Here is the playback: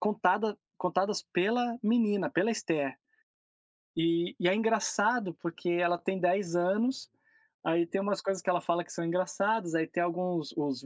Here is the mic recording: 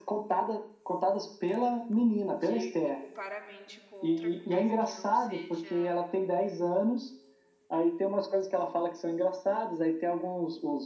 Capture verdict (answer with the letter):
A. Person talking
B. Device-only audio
A